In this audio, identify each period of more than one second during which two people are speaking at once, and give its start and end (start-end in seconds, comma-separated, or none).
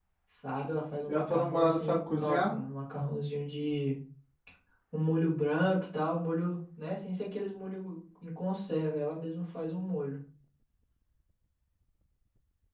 1.1-2.5